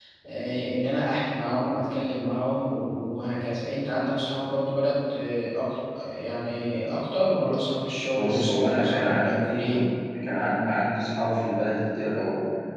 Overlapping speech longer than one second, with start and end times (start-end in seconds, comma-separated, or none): 8.2-9.8